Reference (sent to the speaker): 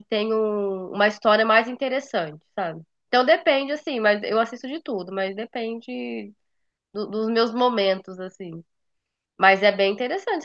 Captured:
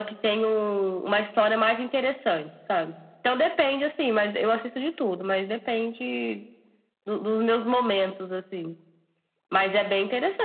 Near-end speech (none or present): none